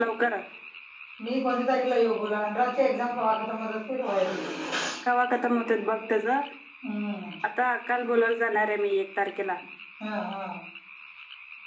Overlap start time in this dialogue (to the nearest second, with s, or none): none